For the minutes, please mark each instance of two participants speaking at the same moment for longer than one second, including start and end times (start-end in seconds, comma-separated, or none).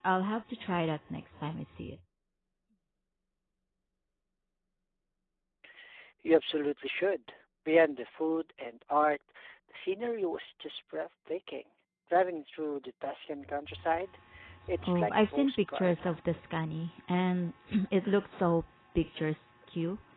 14.9-16.1